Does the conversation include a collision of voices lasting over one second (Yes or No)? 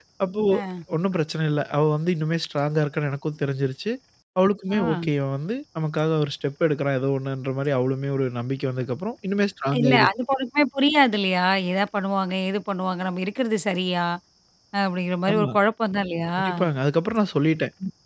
No